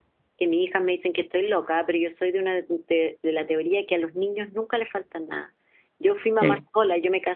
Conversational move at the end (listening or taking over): listening